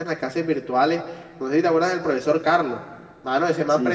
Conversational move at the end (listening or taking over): listening